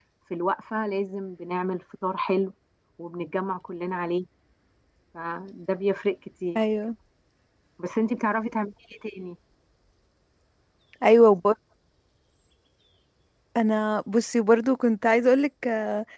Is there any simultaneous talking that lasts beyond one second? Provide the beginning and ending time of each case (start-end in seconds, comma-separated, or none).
none